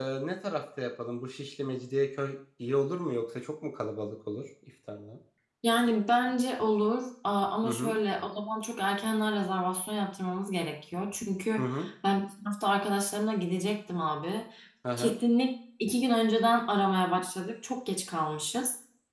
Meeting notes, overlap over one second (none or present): none